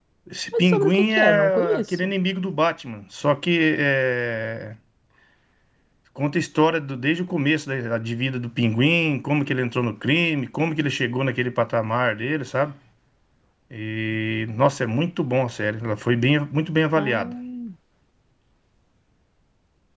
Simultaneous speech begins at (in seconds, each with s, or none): 0.6 s